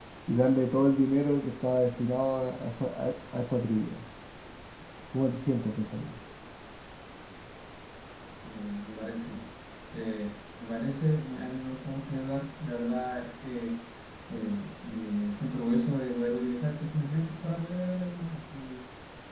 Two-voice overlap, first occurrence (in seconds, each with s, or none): none